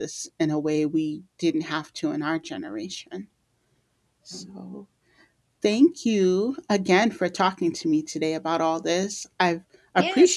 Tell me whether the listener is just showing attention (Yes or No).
No